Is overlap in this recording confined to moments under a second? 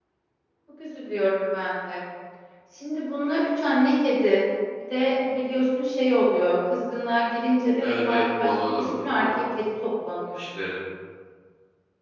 No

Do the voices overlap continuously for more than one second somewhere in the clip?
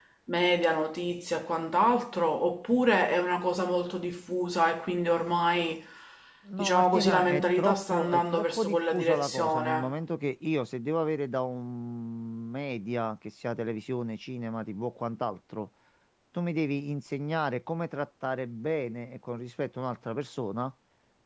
Yes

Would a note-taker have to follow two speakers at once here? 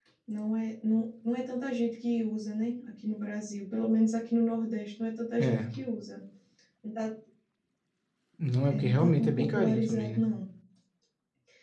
Yes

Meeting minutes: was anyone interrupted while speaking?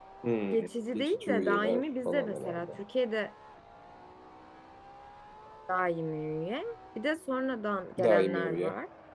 Yes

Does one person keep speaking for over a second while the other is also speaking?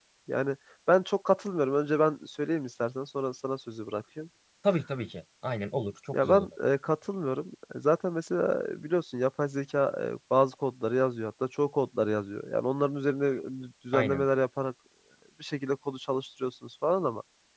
No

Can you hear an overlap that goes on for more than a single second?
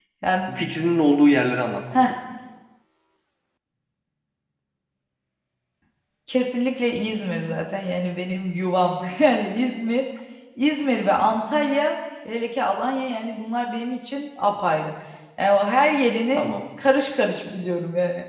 No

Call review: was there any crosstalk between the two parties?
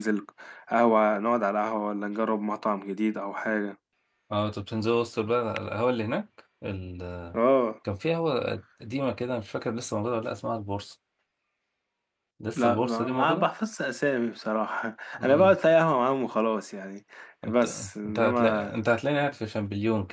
Yes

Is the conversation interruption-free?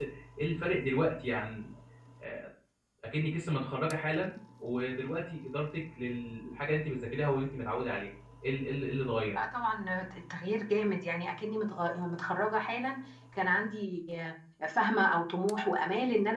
Yes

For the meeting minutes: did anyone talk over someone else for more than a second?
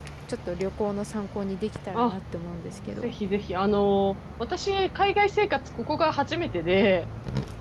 No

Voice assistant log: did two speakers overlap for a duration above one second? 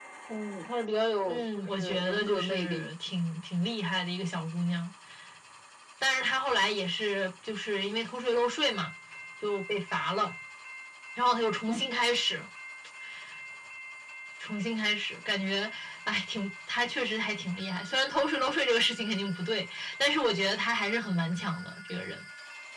Yes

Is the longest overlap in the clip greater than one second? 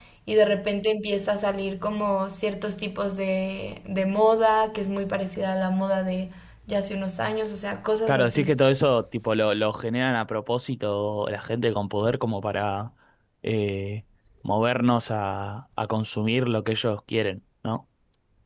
No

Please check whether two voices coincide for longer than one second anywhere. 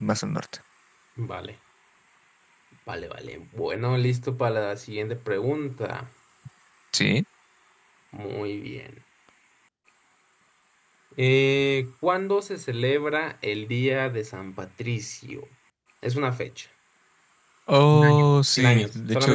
Yes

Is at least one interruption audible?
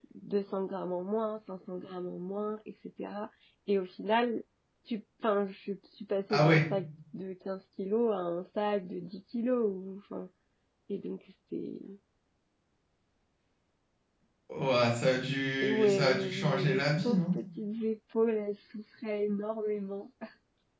Yes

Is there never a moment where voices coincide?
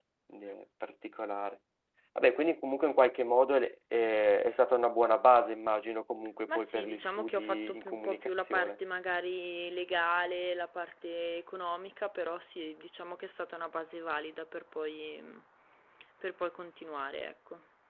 No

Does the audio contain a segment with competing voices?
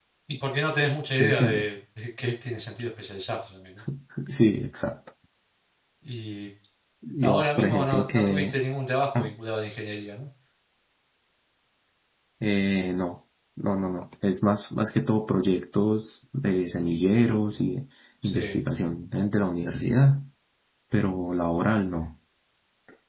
Yes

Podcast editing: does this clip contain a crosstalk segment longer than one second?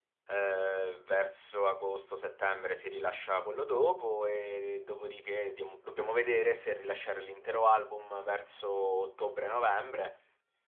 No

